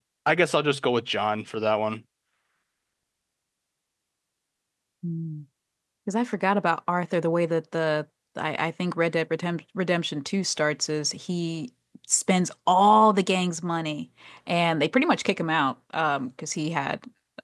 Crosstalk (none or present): none